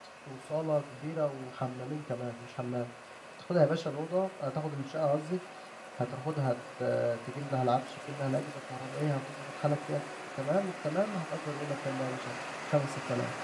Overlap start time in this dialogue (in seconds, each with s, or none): none